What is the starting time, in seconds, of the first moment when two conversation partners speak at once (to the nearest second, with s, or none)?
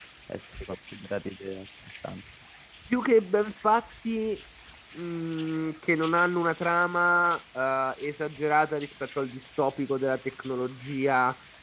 none